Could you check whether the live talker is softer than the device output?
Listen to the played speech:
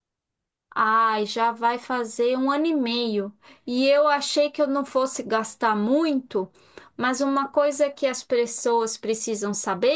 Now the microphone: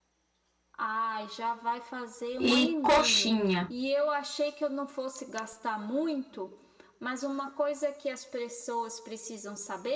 No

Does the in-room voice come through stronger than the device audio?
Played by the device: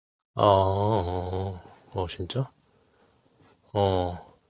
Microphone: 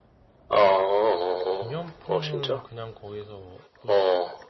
No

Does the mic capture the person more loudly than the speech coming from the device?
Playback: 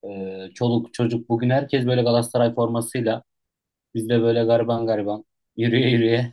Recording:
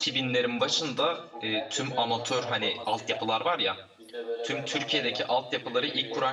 Yes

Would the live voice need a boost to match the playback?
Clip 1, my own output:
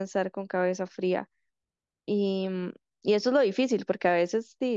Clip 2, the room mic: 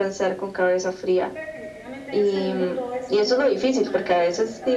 Yes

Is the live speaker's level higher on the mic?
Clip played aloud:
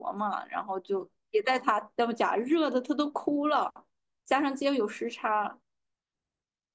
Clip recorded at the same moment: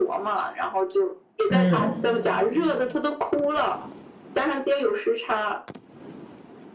Yes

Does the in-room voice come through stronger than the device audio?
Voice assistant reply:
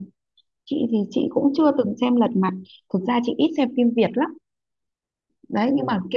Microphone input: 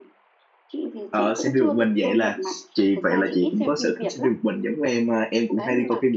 Yes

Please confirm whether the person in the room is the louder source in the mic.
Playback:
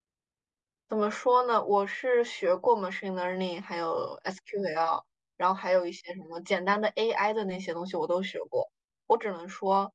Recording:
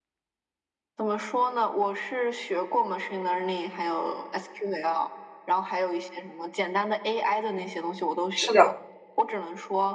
Yes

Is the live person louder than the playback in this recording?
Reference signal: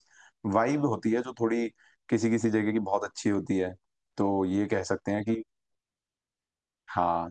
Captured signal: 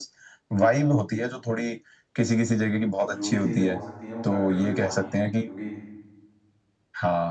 No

